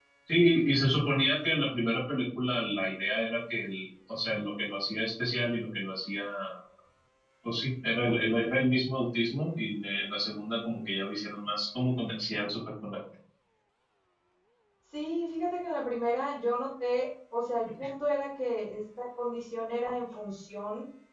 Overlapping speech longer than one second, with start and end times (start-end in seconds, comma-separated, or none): none